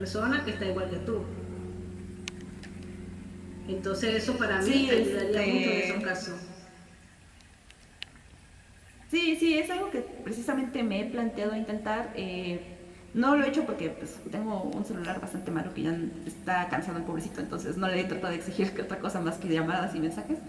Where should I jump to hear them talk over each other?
4.6 s

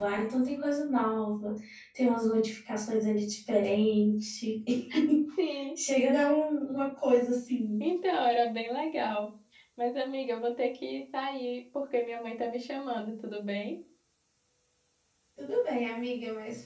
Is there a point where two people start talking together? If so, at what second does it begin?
none

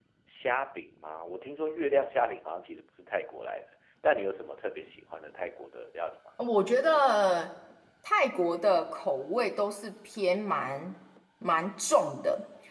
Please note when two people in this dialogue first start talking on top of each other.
none

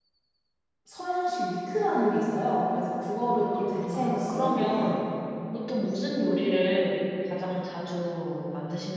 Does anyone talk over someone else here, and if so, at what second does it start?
3.2 s

